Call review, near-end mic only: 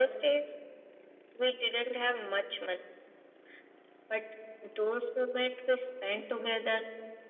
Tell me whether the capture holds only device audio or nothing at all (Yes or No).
Yes